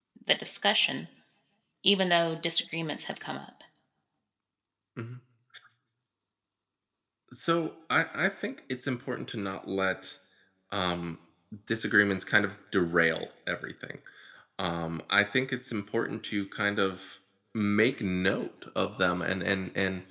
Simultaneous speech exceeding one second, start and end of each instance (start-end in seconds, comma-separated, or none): none